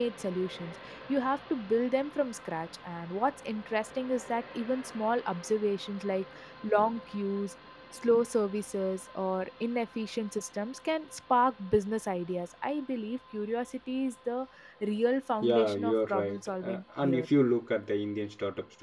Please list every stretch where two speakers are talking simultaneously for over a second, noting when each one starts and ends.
15.4-17.3

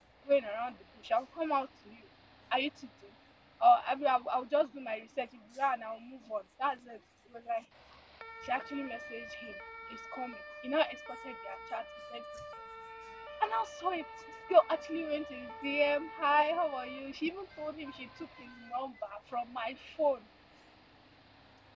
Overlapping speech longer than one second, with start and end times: none

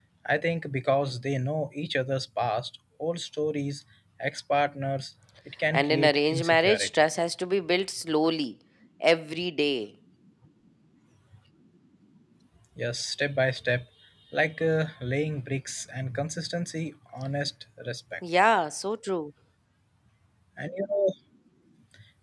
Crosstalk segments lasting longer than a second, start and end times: 5.7-7.0

